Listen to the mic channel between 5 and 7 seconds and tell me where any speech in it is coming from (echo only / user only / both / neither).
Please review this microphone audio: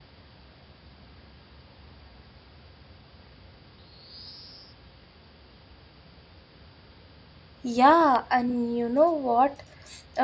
neither